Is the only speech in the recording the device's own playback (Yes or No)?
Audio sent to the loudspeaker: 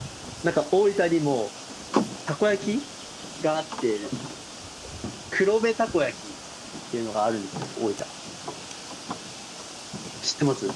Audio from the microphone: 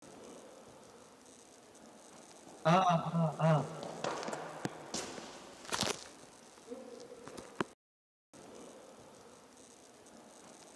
No